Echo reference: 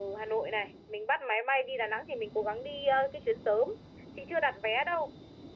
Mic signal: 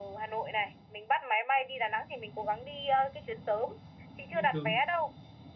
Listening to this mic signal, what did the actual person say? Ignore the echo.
Đi sớm.

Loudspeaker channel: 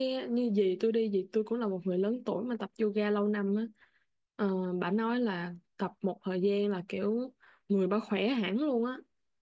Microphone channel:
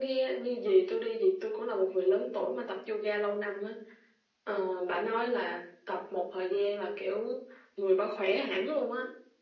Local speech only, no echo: none

